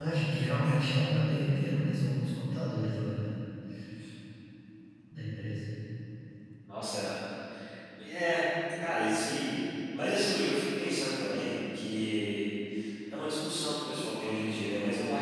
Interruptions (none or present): none